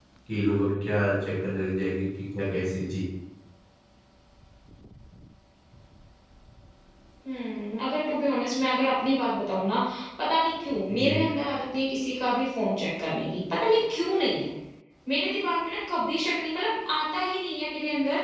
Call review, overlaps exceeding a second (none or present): none